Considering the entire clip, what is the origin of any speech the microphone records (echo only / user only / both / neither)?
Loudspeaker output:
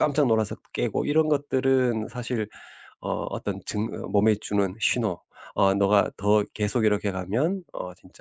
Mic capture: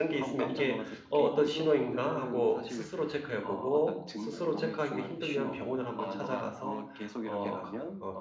both